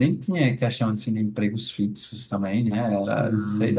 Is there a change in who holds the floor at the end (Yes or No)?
No